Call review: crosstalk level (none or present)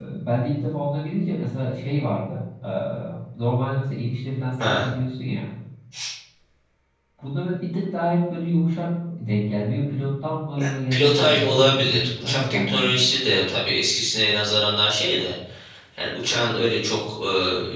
present